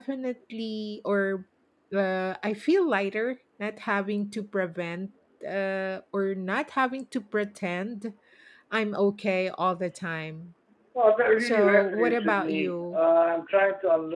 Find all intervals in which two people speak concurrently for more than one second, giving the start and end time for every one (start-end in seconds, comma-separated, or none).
11.4-13.0